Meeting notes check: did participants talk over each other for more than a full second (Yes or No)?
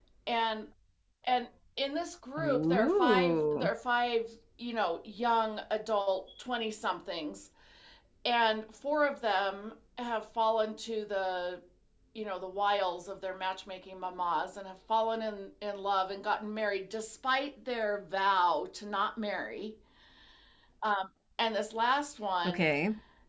Yes